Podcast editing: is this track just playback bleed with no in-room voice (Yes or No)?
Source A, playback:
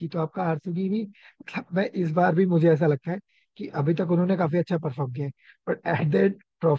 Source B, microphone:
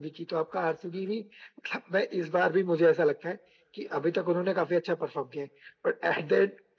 Yes